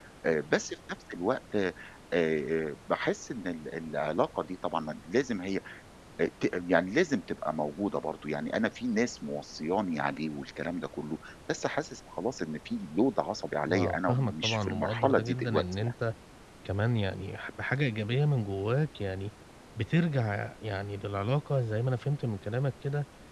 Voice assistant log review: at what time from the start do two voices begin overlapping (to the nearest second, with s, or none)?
14 s